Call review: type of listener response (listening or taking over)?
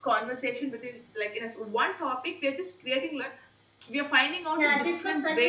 taking over